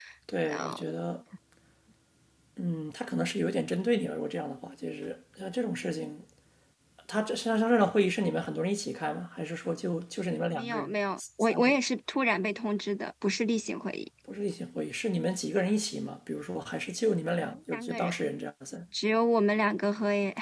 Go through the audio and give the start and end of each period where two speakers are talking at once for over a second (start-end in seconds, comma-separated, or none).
10.5-11.8